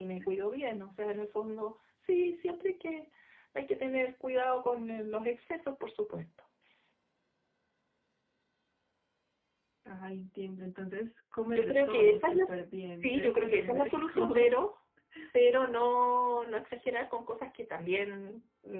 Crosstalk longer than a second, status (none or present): present